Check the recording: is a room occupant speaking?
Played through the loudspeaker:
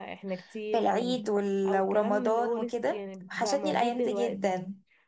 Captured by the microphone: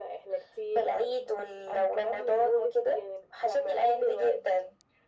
No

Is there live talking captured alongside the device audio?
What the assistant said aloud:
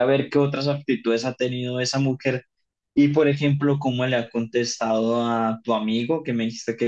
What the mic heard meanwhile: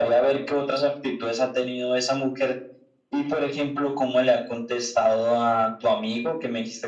No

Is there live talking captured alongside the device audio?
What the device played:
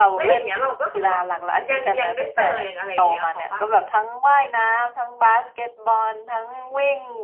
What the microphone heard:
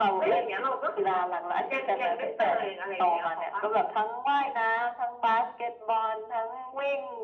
No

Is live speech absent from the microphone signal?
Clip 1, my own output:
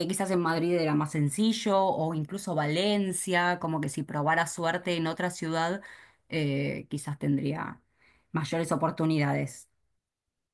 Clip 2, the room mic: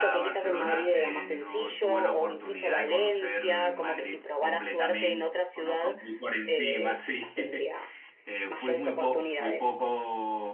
No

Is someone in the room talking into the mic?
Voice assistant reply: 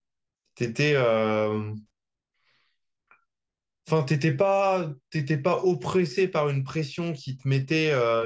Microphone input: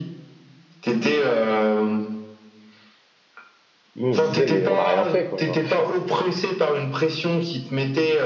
Yes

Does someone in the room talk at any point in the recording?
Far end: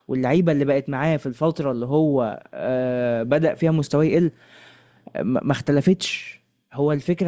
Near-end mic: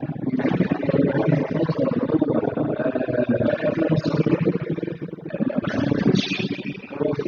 No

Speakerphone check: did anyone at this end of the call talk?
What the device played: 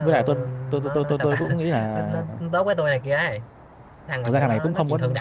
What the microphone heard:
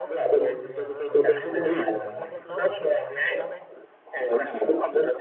Yes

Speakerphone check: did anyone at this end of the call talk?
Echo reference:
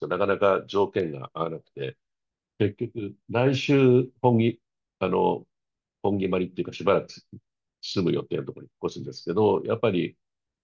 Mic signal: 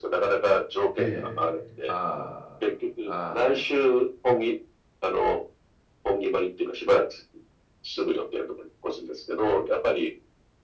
Yes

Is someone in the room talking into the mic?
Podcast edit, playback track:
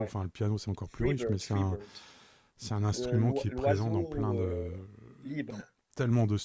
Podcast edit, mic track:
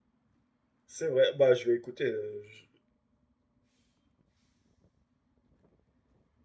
Yes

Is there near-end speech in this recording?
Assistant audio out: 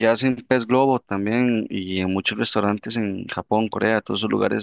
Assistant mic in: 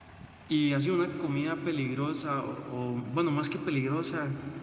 Yes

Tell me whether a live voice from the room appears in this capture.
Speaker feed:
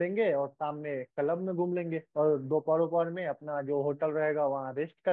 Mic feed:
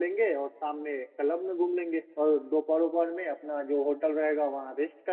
No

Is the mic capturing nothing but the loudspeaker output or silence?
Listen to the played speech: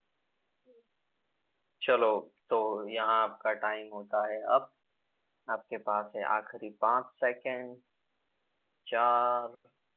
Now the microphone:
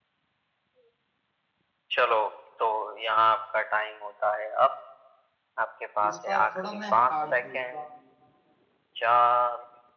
No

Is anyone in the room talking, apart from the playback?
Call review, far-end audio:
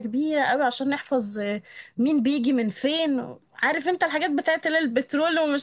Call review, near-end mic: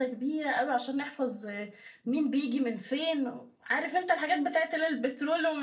No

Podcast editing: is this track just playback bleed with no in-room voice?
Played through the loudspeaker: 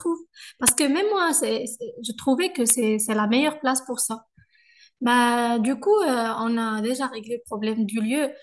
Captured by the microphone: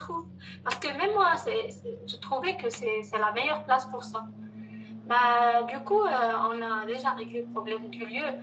Yes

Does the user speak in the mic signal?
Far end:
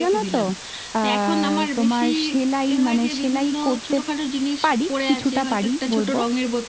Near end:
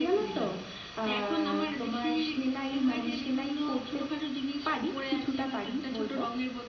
No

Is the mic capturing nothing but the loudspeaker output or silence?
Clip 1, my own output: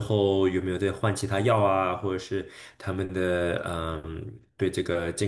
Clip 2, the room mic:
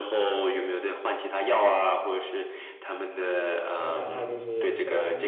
No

